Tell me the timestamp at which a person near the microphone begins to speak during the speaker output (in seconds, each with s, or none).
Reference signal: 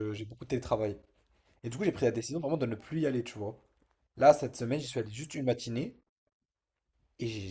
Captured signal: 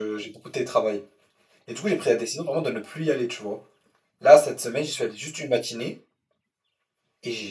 none